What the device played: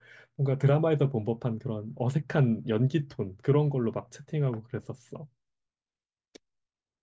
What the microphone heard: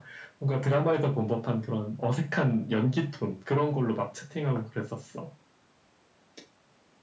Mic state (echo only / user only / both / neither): echo only